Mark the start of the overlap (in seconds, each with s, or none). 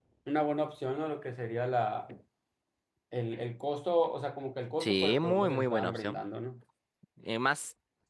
4.8 s